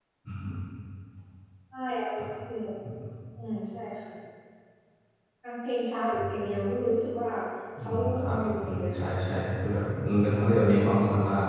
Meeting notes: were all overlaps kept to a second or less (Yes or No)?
No